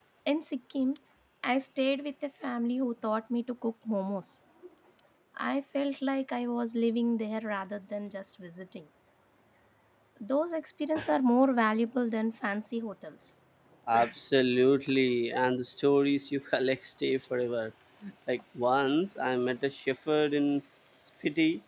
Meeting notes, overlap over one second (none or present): none